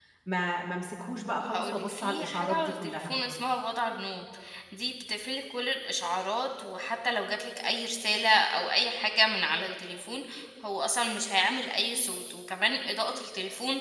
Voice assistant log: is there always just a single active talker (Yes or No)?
No